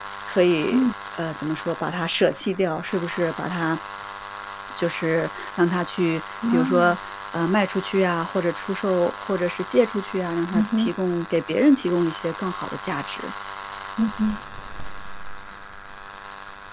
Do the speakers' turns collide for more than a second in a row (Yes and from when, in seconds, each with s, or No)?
No